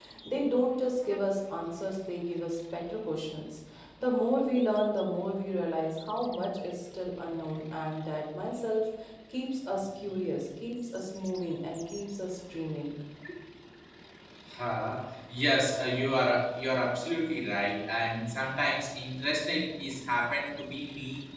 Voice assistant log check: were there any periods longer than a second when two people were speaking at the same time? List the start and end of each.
none

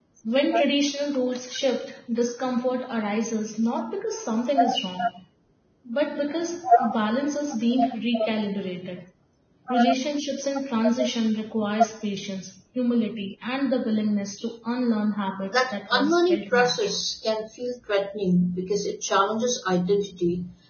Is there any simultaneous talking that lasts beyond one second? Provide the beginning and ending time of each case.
15.5-17.0

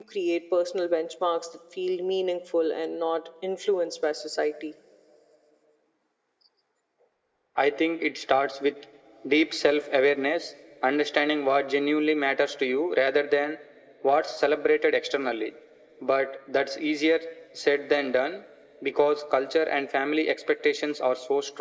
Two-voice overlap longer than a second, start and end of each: none

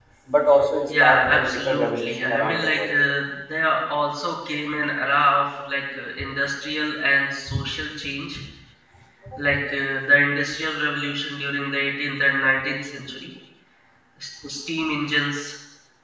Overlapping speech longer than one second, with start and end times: 0.9-2.9

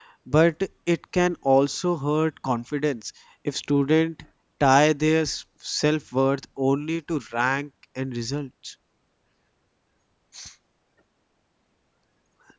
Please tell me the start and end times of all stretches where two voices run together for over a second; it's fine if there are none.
none

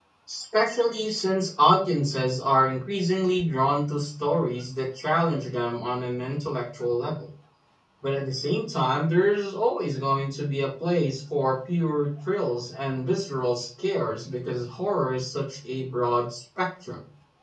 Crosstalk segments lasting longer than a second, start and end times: none

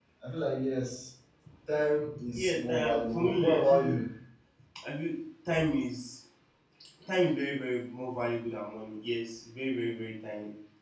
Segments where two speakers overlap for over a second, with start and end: 2.3-3.9

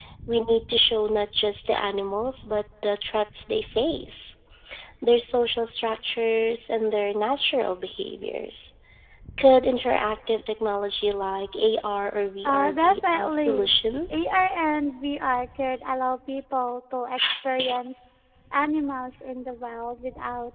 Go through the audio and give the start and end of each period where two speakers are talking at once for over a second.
12.4-13.7

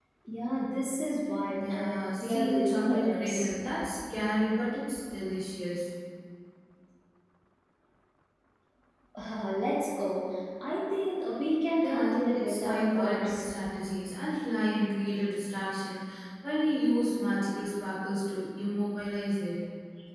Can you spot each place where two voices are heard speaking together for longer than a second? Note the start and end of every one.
1.6-3.5, 11.8-13.4

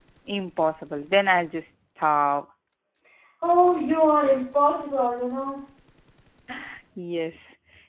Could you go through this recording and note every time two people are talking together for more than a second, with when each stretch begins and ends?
none

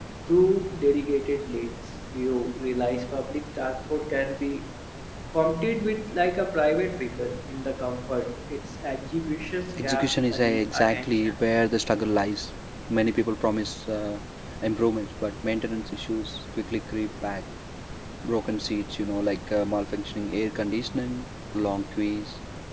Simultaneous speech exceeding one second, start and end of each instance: 9.8-11.4

